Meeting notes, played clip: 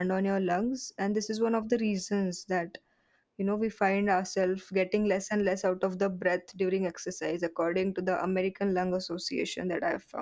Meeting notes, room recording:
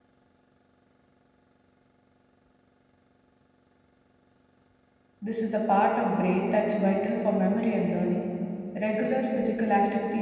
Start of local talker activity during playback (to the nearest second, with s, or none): 5 s